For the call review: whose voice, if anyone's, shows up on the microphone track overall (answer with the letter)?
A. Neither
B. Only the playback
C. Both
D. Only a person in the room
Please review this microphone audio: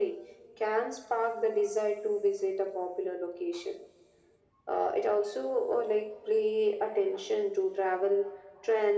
B